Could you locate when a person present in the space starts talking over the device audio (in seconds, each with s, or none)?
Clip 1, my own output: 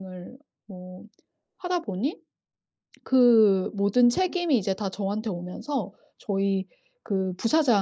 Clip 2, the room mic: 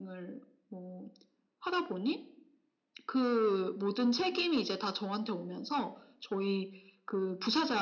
none